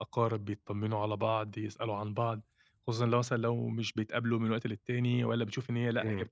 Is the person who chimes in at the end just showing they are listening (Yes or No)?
Yes